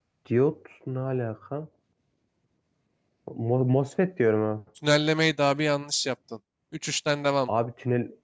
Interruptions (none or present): none